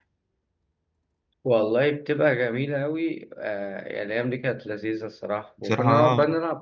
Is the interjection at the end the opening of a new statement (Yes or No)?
No